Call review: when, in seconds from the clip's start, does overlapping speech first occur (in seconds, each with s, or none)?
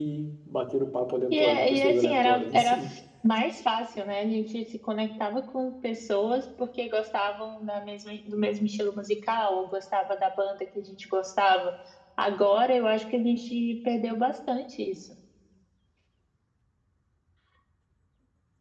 1.3 s